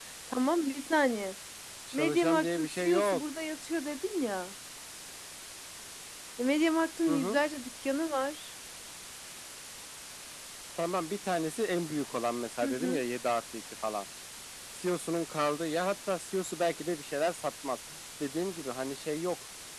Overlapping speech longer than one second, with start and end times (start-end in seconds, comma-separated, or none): 1.9-3.2